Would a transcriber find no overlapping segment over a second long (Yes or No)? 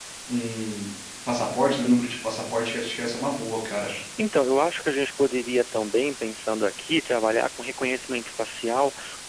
Yes